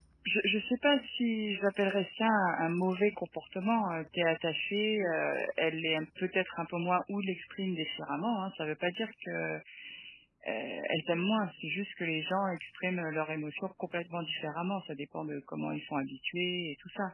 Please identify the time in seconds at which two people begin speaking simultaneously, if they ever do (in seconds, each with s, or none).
none